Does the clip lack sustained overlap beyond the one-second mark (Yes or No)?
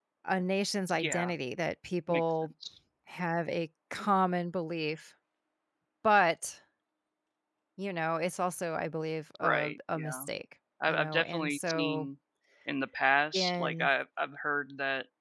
No